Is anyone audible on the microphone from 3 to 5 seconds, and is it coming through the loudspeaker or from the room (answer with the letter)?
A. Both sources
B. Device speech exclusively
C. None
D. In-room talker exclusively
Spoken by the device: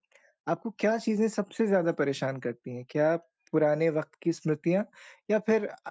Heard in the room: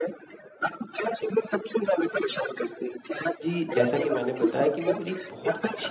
A